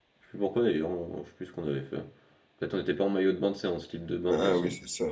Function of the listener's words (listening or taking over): taking over